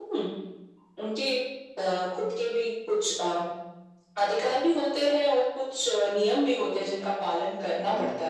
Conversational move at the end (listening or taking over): taking over